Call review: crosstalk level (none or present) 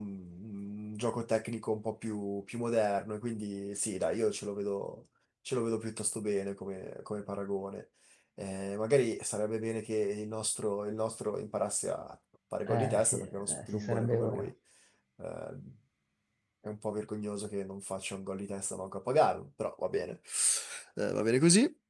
present